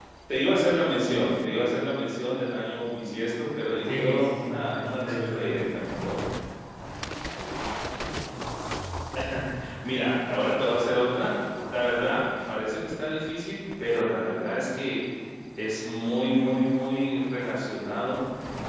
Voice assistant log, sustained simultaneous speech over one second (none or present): present